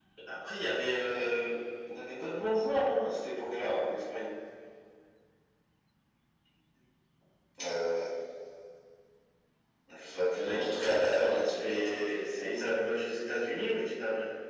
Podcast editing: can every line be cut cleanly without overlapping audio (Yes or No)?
No